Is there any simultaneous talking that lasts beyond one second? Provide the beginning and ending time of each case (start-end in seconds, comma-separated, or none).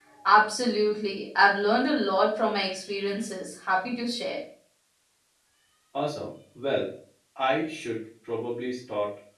none